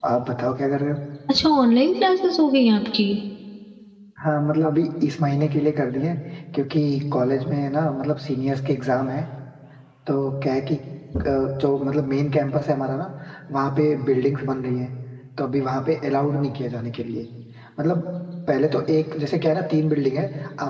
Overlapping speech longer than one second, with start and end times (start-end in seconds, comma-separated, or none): none